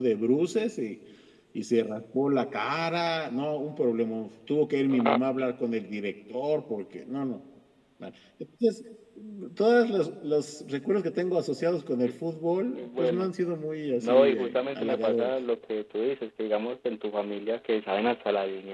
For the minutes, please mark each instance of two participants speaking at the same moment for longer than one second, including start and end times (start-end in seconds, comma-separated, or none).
14.0-15.3